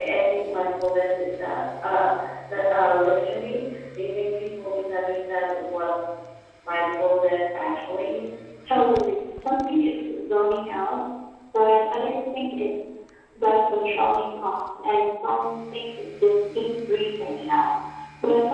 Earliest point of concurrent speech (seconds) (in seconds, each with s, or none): none